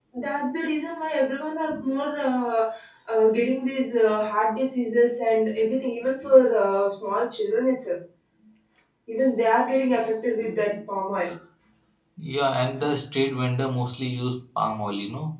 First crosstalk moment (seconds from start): none

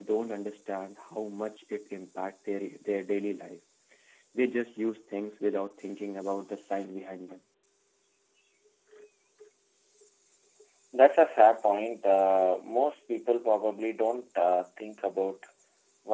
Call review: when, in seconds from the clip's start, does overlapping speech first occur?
none

